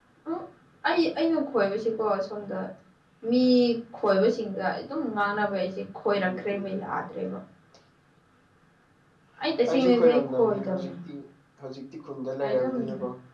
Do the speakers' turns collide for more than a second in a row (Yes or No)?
Yes